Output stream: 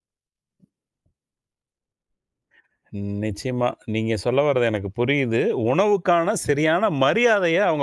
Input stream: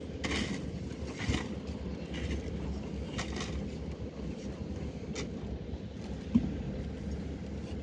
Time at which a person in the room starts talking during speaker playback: none

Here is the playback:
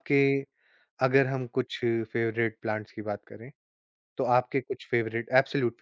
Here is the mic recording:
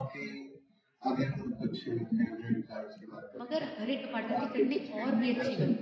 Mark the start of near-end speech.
3 s

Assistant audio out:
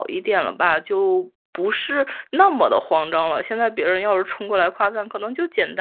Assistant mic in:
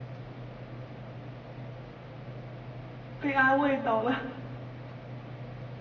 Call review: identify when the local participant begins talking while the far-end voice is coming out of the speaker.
3 s

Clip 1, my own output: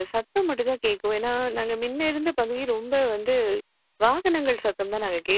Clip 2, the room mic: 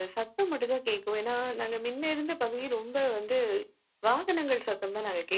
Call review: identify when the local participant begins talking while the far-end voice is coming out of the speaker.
none

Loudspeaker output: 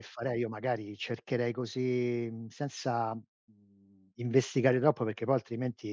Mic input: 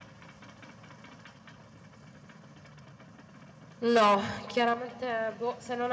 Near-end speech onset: 4 s

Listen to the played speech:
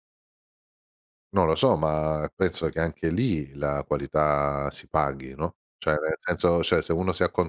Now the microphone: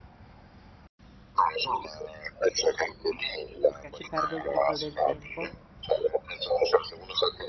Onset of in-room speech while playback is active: 4 s

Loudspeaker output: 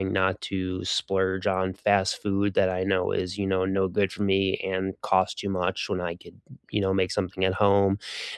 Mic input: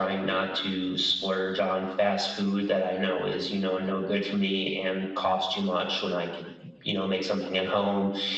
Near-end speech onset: none

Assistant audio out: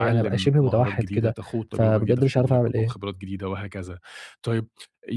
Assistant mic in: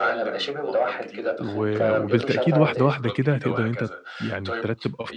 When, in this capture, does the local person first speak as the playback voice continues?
1 s

